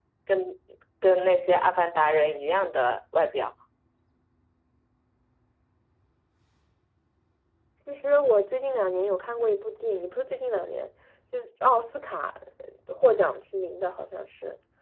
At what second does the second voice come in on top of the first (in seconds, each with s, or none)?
none